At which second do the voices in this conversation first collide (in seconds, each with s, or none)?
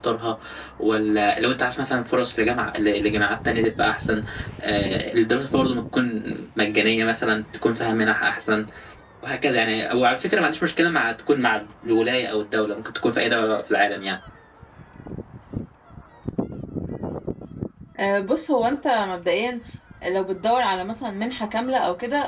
none